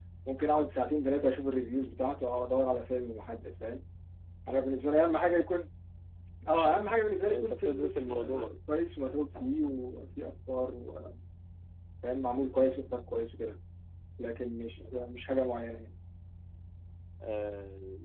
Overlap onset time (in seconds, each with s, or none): 7.2 s